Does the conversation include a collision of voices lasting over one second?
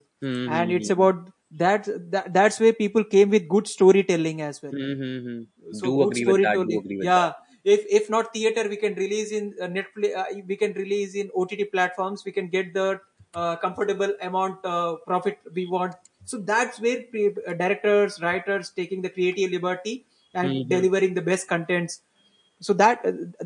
Yes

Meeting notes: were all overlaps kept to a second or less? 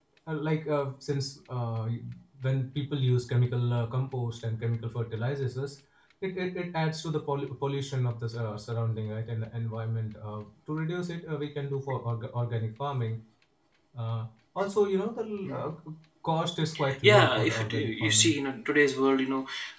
No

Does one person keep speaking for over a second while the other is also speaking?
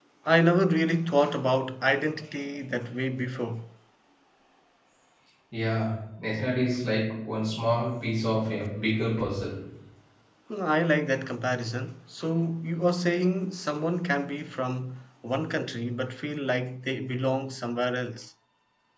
No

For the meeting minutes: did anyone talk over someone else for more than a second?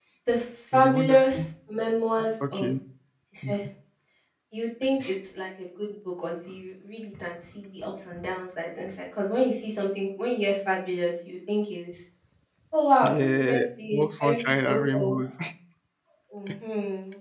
Yes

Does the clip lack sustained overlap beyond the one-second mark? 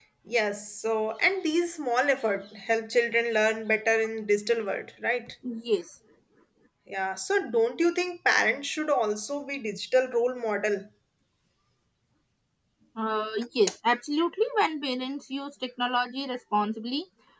Yes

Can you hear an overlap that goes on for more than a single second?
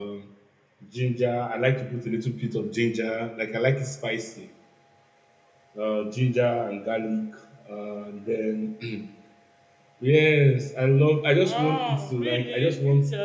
Yes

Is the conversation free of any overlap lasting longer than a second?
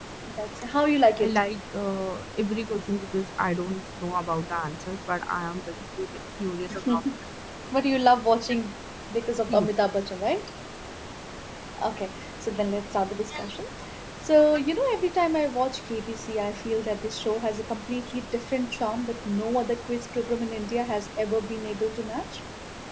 Yes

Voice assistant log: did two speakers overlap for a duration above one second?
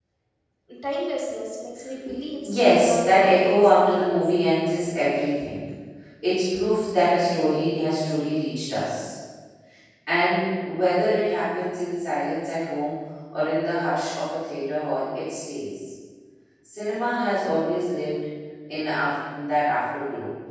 Yes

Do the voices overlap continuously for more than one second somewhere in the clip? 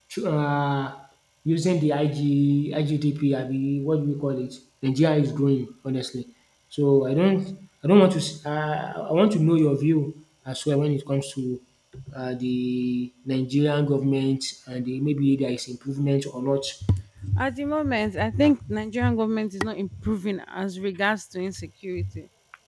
No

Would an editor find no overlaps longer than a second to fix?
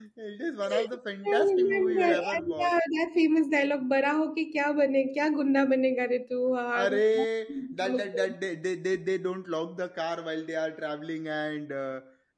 No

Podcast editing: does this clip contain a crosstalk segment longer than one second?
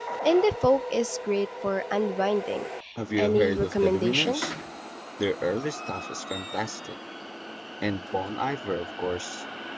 Yes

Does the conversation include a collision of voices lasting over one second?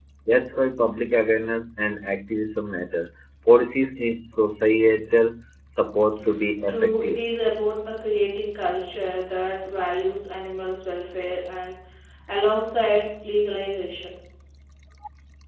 No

